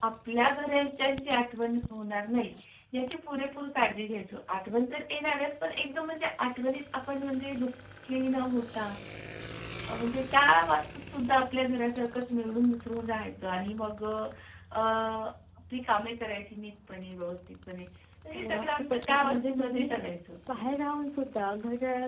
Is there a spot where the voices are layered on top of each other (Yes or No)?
Yes